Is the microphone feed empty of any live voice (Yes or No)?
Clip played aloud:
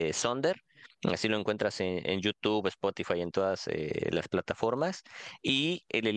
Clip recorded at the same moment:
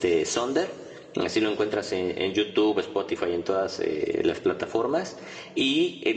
Yes